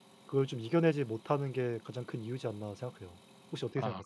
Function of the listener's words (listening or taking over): taking over